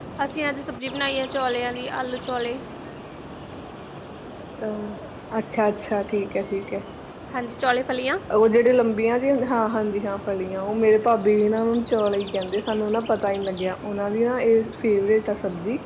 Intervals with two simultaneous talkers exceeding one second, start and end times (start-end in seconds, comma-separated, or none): none